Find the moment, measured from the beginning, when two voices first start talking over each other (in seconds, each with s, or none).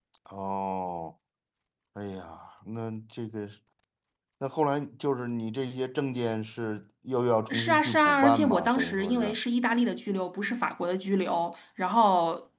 7.5 s